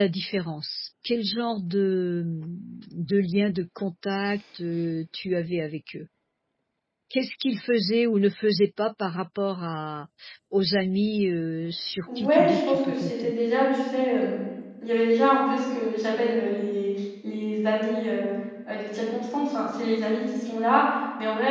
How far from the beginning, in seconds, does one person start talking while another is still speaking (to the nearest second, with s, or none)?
12 s